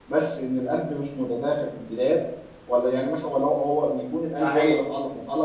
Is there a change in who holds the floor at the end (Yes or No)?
No